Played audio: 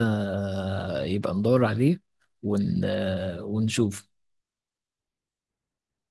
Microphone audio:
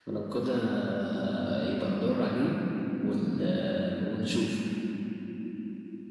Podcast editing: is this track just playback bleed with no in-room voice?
Yes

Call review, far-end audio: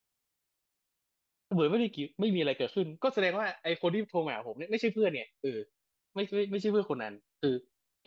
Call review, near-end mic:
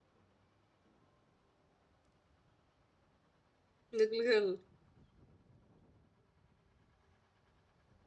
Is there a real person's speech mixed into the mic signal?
Yes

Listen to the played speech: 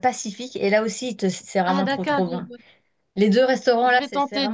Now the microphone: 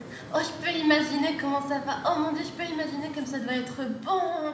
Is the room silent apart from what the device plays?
No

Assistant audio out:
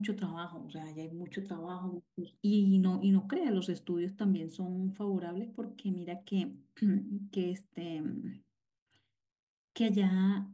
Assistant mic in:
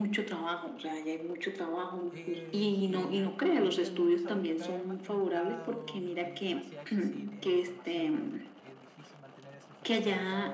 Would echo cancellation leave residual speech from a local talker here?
Yes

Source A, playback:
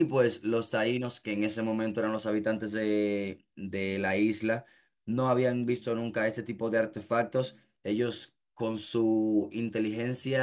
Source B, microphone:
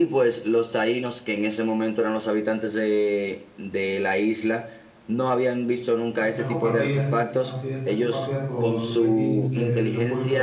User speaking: Yes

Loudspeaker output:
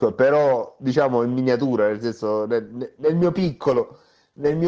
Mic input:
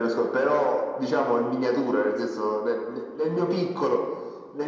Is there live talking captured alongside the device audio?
No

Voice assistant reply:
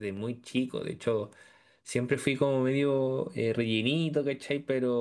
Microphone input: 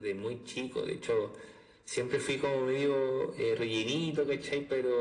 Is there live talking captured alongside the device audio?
No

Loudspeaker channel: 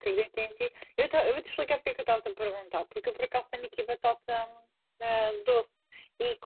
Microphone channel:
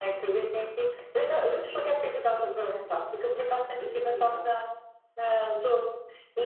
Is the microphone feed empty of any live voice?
No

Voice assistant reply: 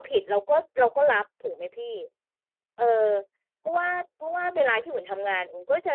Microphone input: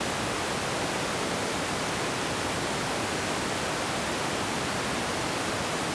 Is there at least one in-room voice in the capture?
No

